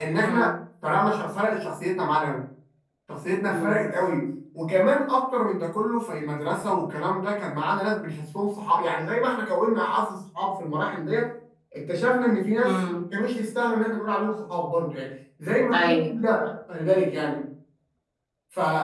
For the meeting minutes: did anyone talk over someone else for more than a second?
No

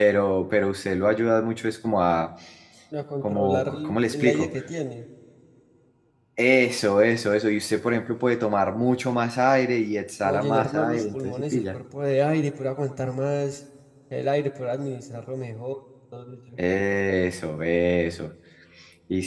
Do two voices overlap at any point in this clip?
Yes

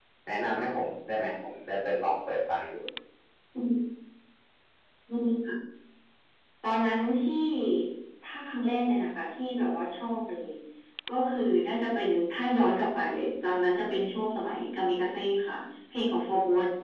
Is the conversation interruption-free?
Yes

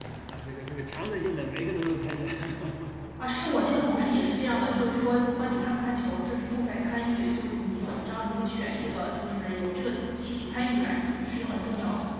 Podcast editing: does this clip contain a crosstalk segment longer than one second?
No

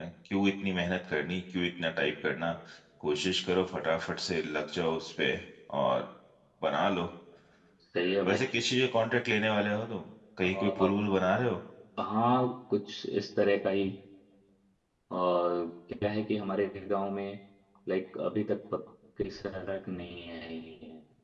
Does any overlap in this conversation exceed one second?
No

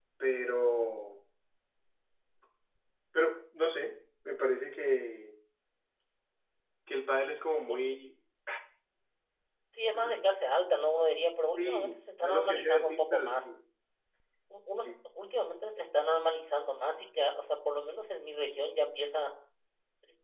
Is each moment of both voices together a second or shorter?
No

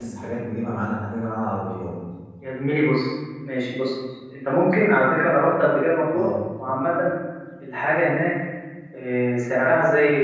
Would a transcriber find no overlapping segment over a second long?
Yes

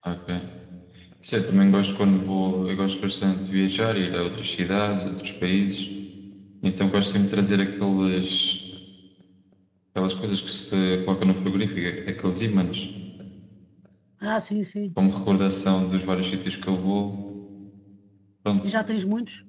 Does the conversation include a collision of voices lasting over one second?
No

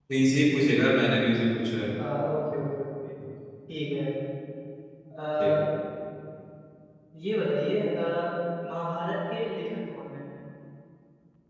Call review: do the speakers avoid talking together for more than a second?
Yes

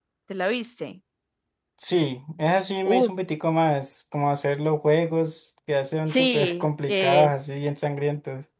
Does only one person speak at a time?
No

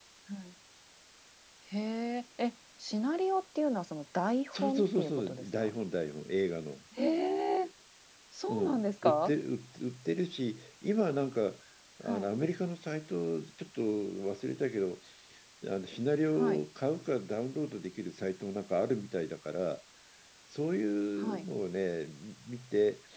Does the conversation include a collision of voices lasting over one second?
Yes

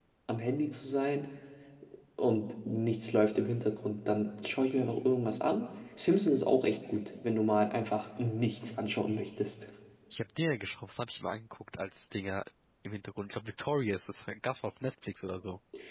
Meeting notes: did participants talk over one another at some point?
No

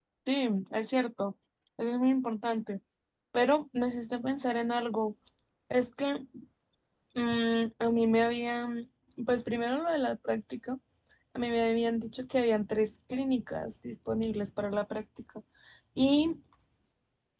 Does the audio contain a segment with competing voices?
No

